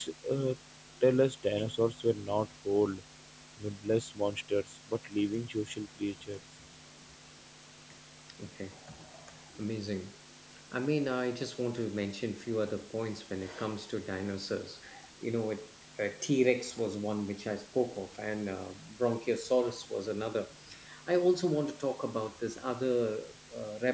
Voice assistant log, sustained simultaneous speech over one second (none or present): none